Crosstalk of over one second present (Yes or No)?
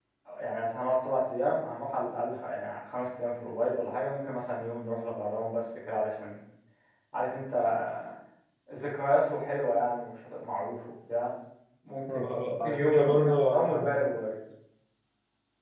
Yes